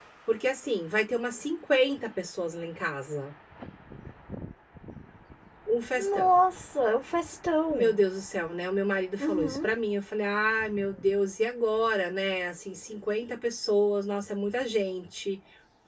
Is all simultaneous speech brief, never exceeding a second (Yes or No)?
Yes